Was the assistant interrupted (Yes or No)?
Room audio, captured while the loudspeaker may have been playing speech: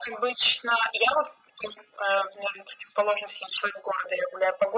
No